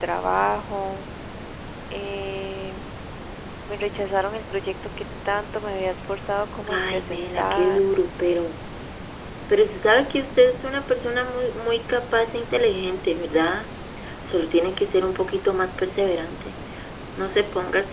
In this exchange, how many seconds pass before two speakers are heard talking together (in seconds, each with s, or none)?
6.7 s